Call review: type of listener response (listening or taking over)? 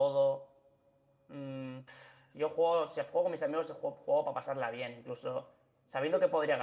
listening